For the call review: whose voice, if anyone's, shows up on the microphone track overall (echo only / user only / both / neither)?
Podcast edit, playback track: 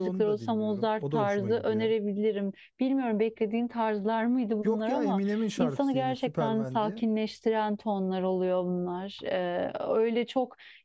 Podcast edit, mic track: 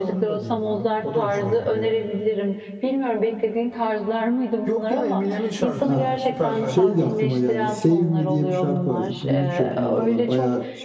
both